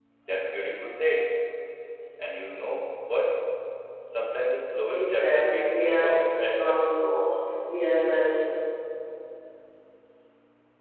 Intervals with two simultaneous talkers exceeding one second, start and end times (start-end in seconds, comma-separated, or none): 4.9-6.8